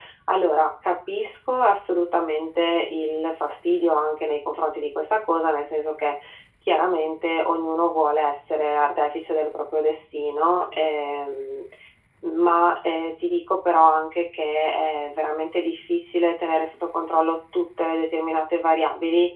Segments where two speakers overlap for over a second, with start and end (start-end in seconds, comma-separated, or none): none